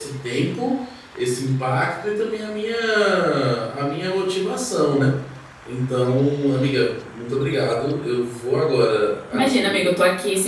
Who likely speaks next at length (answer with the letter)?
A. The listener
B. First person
A